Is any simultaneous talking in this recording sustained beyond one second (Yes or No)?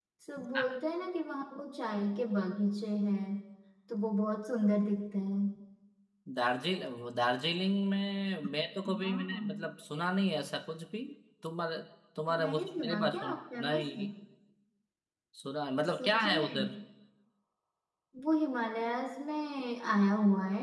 Yes